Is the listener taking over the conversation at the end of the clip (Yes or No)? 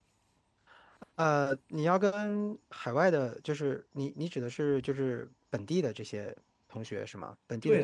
Yes